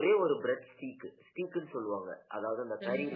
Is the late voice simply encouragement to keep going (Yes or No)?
No